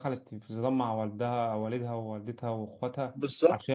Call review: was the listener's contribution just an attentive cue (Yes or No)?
No